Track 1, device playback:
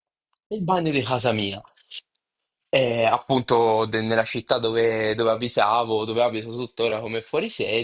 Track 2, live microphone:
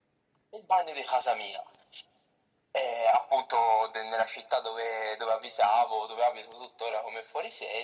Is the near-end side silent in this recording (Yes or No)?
Yes